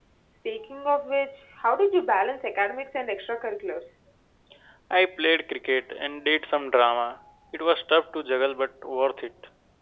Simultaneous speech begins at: none

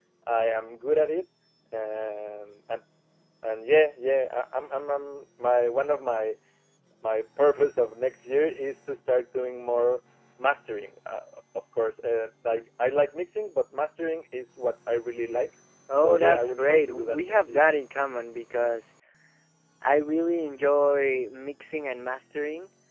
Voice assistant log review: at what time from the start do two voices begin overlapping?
15.9 s

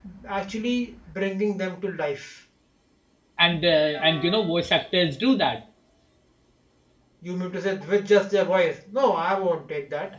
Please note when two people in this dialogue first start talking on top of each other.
none

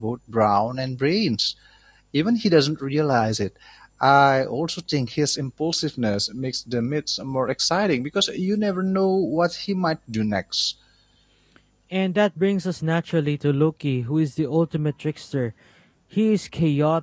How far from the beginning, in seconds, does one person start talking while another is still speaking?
none

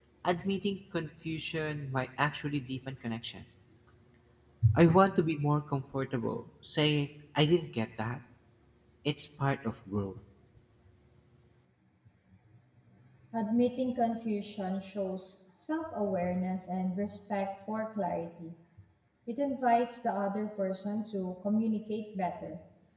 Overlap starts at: none

